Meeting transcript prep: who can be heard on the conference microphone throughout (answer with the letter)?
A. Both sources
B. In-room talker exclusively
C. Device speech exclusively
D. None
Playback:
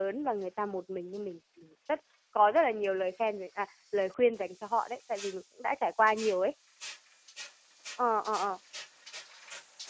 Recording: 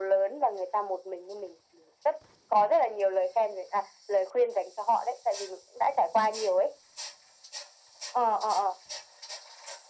C